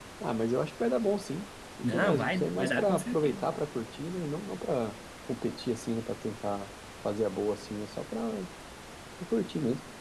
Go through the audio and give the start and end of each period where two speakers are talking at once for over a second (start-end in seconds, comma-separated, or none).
1.9-3.4